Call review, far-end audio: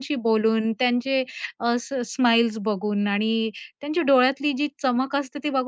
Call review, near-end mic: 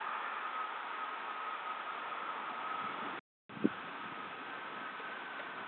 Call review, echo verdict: none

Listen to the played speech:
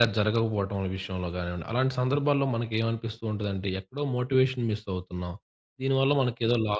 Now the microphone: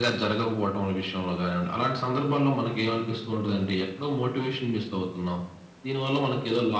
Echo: present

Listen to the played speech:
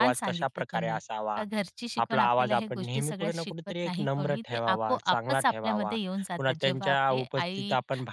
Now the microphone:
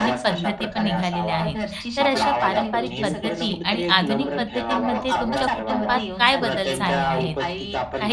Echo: present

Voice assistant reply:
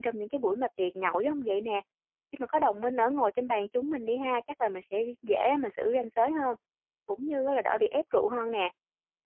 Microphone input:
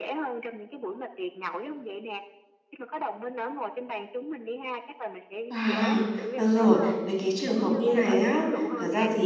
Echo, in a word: present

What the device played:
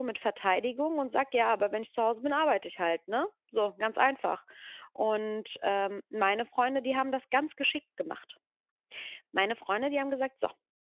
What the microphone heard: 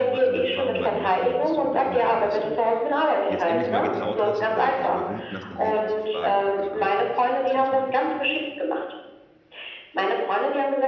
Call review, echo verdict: present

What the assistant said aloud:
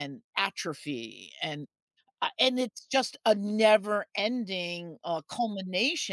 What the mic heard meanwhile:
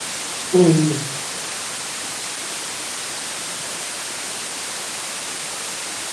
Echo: none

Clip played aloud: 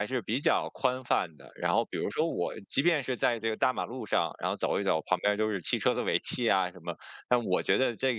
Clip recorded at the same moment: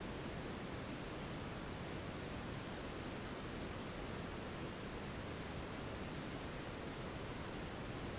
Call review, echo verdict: none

